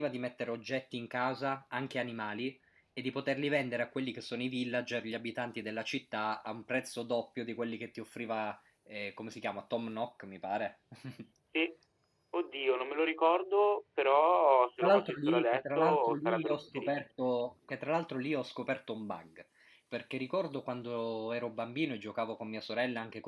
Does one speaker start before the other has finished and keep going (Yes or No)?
Yes